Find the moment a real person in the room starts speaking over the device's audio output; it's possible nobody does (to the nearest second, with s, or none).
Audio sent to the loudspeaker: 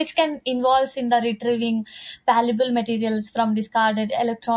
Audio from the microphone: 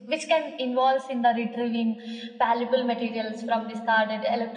none